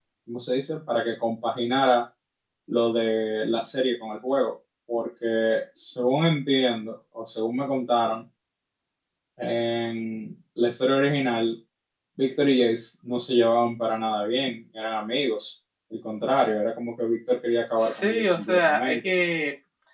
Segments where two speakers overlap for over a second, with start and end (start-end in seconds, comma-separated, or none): 17.8-19.1